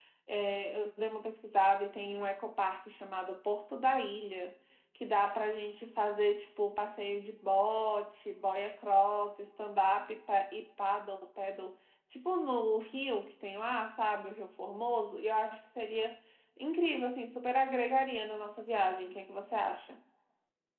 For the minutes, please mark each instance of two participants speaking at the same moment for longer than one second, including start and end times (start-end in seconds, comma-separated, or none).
none